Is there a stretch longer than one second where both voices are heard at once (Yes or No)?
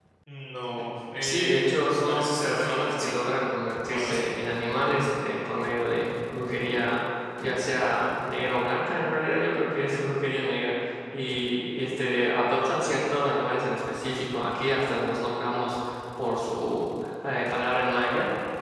Yes